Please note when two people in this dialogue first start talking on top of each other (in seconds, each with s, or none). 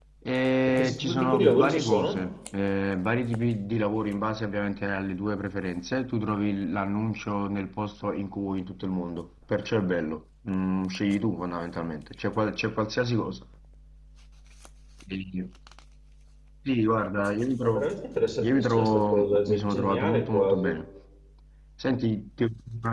0.7 s